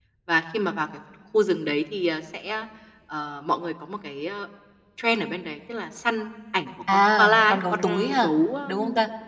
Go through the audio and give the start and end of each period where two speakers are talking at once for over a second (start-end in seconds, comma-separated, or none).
6.9-8.3